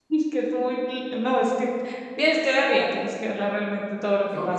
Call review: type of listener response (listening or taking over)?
listening